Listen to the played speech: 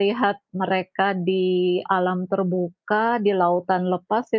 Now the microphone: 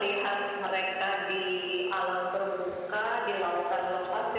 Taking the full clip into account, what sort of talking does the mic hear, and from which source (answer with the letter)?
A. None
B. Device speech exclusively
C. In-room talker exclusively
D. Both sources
B